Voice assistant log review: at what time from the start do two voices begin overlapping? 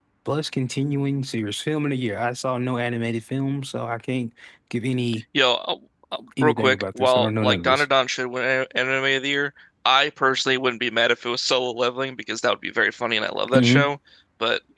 6.4 s

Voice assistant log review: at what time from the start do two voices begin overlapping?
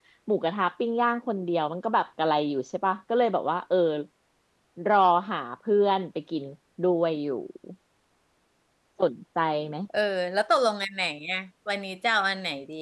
none

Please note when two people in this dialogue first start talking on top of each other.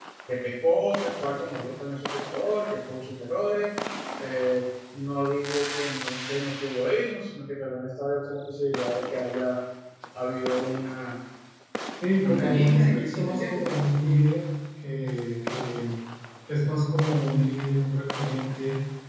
12.2 s

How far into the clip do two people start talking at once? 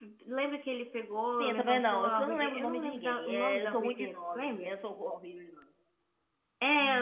1.4 s

